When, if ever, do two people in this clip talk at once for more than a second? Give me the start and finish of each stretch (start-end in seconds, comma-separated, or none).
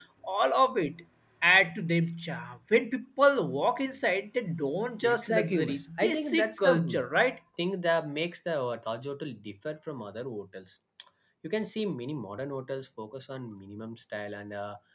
5.0-6.7